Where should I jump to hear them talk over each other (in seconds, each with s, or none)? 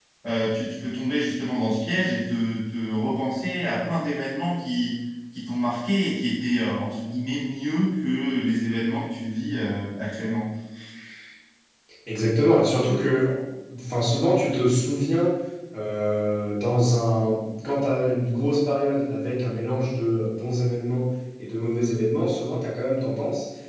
none